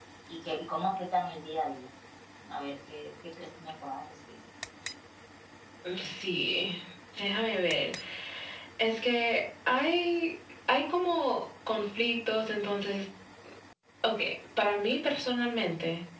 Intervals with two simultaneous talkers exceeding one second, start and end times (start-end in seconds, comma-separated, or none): none